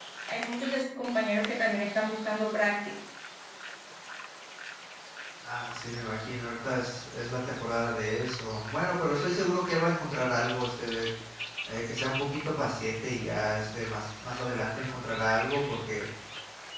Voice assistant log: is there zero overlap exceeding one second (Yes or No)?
Yes